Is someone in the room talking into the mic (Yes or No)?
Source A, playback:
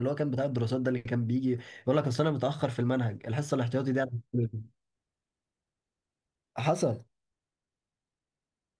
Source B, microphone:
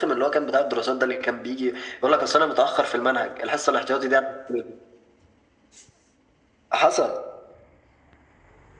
No